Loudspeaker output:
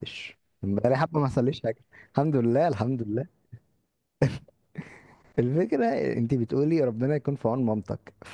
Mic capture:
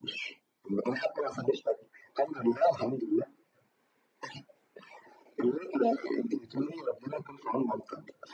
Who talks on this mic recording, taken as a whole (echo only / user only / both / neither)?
echo only